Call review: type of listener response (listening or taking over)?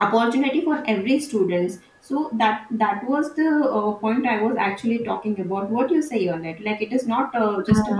listening